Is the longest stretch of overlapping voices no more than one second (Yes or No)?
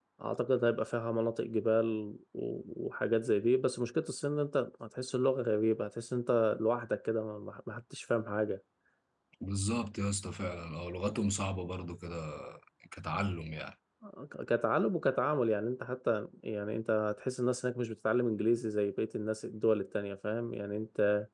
Yes